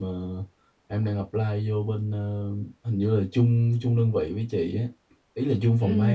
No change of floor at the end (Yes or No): No